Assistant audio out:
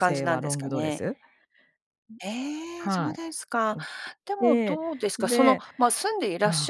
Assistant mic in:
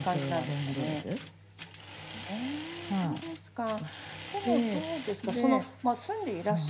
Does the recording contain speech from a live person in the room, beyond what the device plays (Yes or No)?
No